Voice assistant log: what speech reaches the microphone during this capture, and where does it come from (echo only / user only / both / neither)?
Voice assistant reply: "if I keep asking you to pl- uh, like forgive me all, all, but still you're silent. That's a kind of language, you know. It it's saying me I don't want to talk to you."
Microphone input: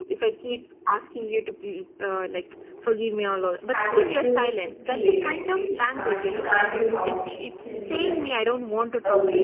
both